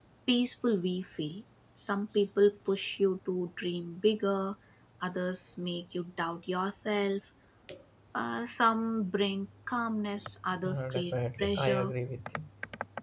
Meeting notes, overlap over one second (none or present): present